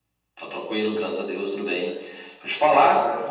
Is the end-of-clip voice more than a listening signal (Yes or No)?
No